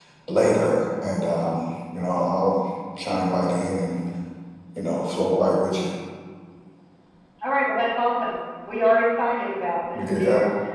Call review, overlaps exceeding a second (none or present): none